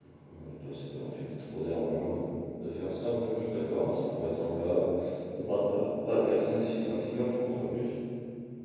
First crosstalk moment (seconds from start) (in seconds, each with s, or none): none